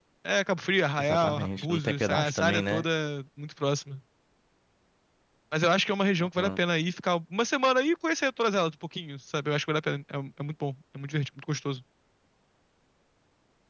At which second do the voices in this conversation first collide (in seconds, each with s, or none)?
1.0 s